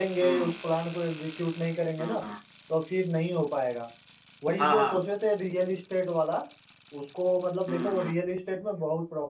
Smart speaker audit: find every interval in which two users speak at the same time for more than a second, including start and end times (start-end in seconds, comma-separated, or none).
none